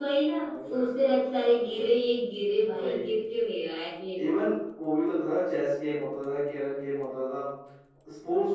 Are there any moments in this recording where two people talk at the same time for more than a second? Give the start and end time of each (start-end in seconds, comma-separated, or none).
none